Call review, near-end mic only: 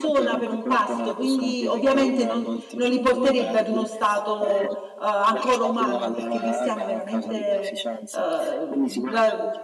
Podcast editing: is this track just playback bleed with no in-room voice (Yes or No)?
No